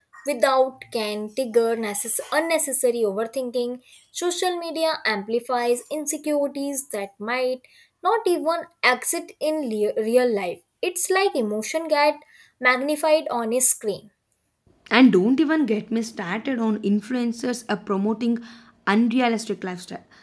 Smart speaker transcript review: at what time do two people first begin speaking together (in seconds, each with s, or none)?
none